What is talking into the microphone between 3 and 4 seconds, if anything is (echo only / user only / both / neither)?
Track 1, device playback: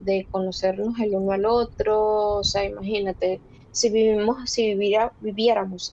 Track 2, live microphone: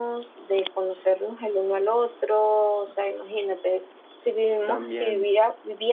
echo only